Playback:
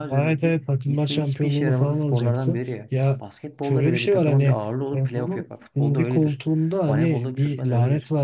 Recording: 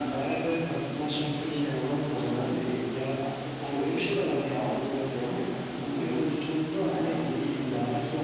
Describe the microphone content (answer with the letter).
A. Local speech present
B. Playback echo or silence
B